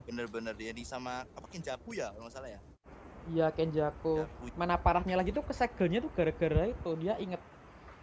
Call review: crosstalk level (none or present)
none